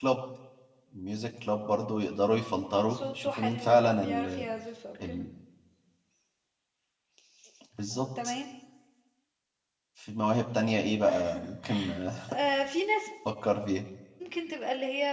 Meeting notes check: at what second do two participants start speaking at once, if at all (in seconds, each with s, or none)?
3.0 s